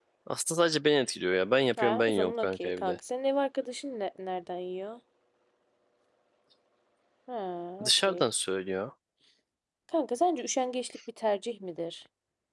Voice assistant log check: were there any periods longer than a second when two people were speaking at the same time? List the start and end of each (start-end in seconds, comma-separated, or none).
1.8-3.0